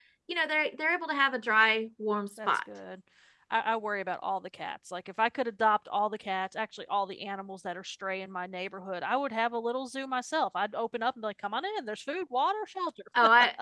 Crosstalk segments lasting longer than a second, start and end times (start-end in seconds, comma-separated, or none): none